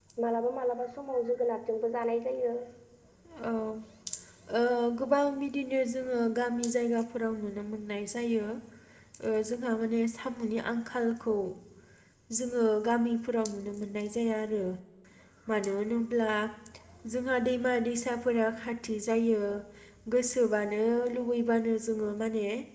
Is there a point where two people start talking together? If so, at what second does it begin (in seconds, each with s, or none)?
none